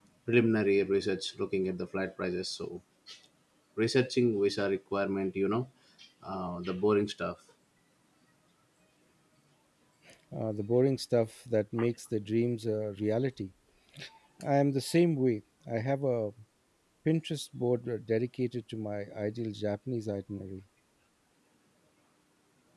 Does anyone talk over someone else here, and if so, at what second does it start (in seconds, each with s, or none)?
none